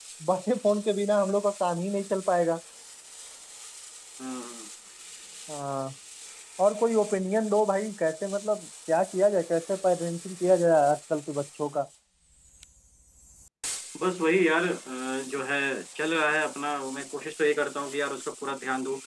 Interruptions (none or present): none